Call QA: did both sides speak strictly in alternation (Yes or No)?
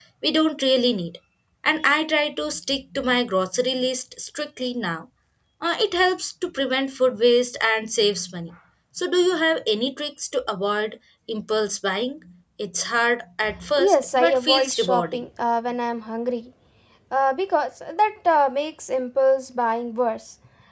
No